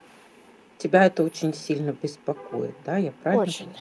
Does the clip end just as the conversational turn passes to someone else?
Yes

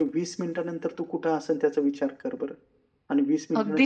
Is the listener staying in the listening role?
No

